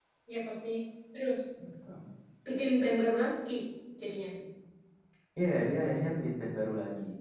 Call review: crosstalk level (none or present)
none